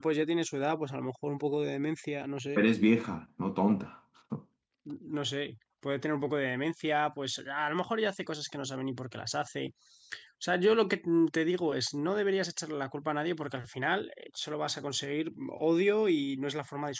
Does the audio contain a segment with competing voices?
No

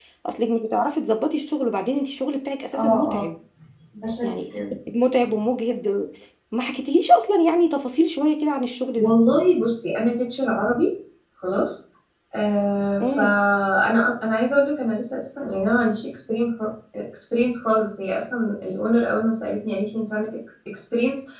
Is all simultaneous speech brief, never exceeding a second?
Yes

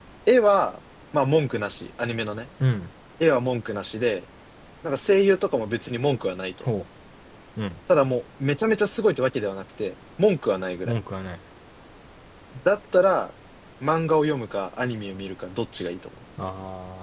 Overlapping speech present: No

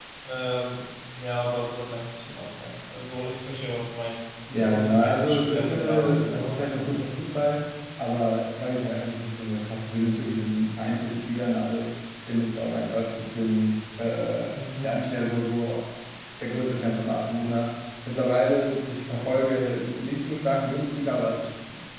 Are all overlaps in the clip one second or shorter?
No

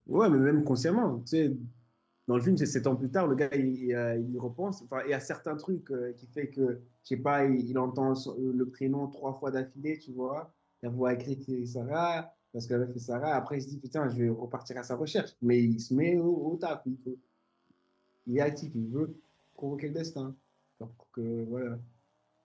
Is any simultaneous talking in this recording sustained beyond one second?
No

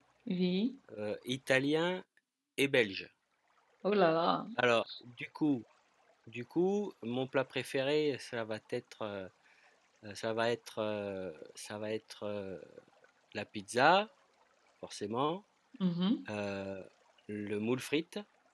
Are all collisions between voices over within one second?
Yes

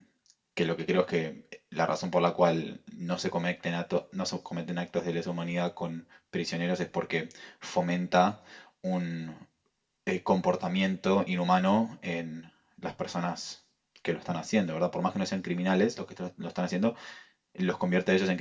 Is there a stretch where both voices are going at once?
No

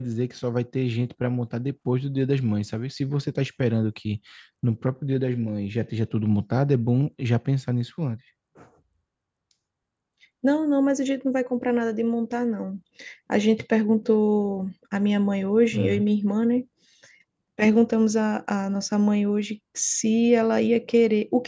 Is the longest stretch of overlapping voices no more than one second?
Yes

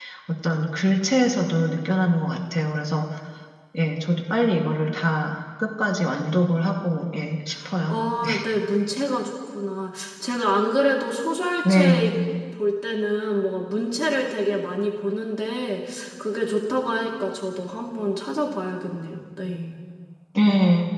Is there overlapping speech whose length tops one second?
No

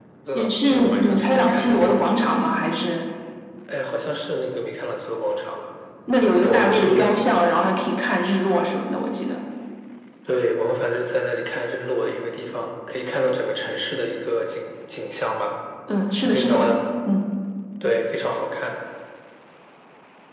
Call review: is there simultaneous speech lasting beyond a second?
Yes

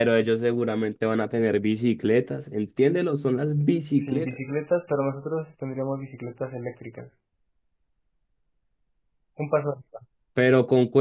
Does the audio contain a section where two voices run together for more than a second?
No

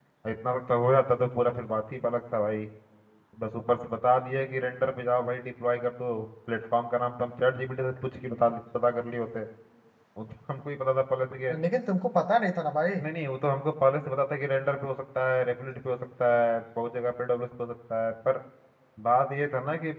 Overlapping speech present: No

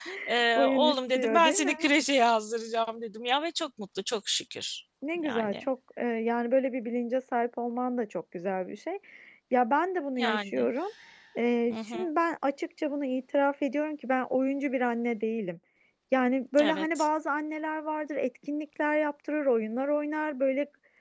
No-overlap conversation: No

